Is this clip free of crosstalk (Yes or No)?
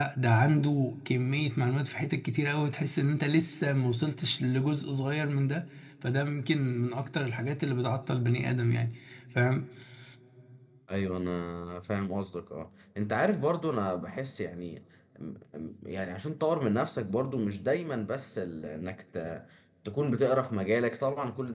Yes